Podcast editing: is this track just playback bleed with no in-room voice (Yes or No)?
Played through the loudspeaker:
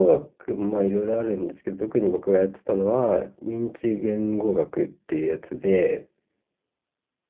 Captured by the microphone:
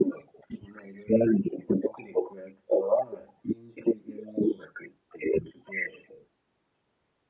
Yes